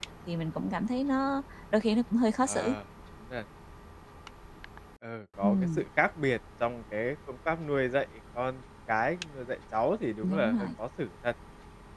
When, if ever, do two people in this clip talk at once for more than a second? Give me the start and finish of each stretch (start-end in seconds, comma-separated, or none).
none